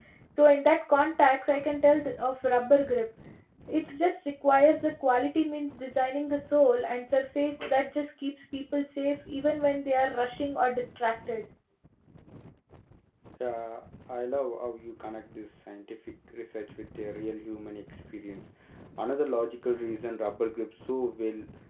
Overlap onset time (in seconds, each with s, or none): none